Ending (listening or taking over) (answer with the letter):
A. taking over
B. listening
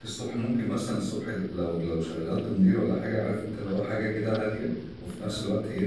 B